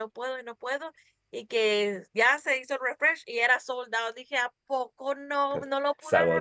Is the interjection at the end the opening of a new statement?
Yes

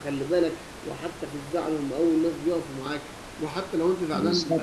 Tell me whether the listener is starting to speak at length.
No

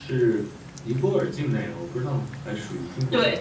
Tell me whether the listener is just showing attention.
No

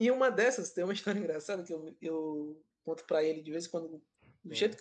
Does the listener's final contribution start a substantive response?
No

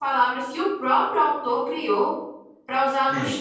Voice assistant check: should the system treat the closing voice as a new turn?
No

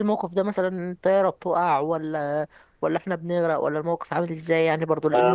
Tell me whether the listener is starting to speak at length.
Yes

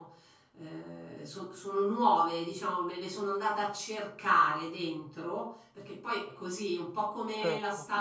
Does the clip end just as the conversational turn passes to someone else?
No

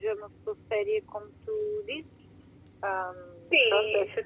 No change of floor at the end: No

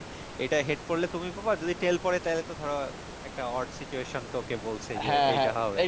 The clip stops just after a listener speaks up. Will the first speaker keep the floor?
No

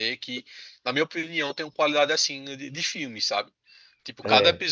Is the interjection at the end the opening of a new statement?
No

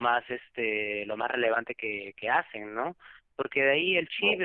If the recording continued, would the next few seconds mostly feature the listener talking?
No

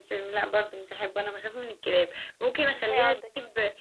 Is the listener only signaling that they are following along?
Yes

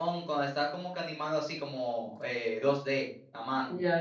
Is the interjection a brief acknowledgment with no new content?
No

